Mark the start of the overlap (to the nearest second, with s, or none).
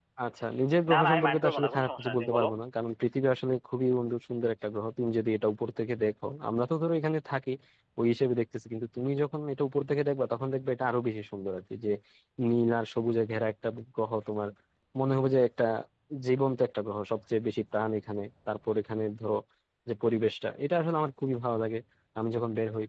1 s